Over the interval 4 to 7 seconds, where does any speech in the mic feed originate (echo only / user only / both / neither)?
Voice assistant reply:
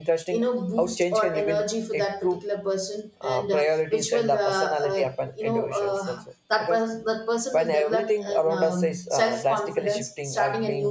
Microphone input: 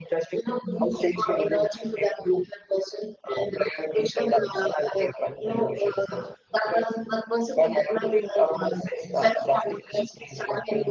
echo only